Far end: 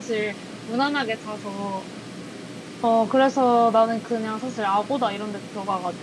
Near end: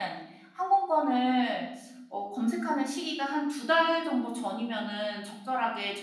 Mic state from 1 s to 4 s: user only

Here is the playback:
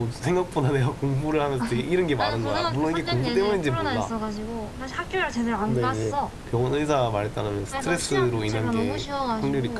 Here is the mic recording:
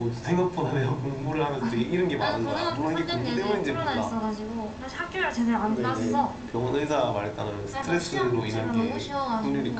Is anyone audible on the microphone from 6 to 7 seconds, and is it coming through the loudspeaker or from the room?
both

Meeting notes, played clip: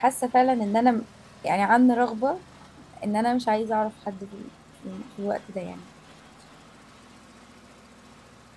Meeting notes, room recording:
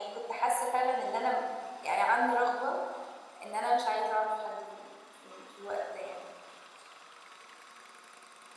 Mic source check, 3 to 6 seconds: echo only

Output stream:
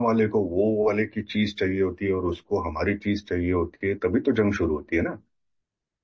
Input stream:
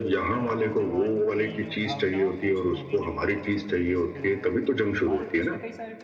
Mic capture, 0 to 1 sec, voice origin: both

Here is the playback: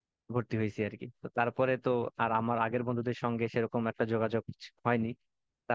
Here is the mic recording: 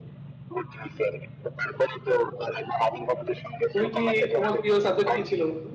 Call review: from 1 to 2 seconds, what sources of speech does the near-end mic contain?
echo only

